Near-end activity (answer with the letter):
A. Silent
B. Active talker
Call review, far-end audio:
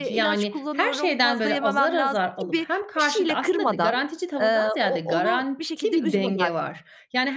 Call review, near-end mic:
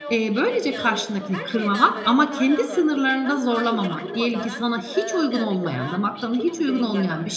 B